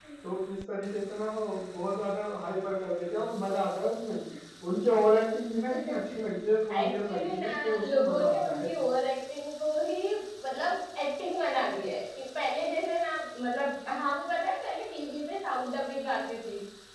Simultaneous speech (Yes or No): Yes